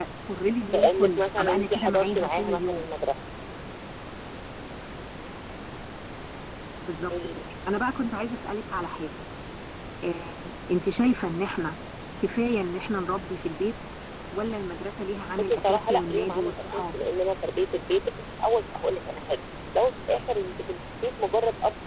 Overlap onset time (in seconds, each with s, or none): 0.7 s